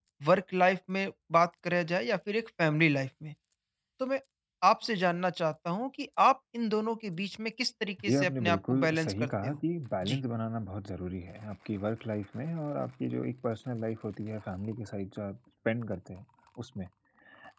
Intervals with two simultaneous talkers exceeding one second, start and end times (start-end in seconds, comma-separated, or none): 8.1-9.6